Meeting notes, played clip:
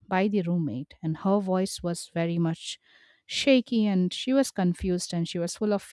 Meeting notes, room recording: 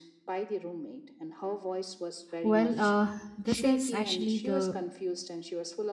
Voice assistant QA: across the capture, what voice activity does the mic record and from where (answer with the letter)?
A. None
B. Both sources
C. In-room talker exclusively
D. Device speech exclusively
B